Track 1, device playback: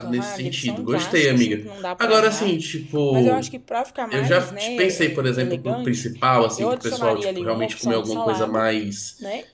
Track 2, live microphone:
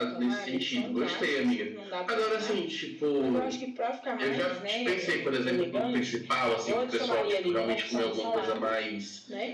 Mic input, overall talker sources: echo only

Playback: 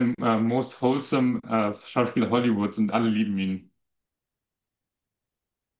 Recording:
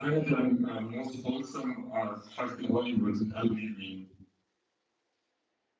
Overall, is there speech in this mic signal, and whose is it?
echo only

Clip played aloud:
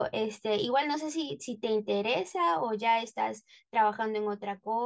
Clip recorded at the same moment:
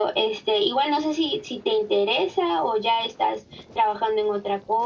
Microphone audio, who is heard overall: echo only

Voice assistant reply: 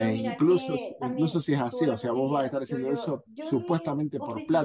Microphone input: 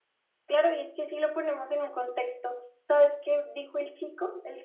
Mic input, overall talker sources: user only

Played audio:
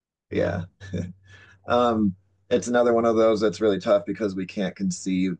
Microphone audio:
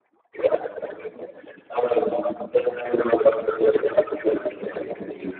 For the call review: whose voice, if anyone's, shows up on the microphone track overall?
both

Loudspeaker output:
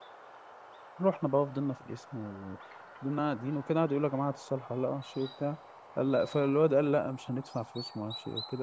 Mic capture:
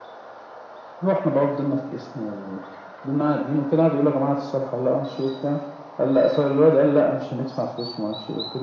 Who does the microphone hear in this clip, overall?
echo only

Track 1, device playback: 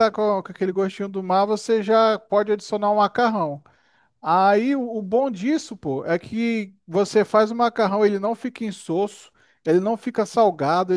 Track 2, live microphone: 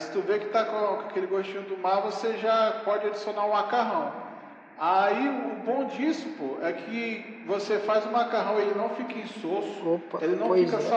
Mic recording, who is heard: both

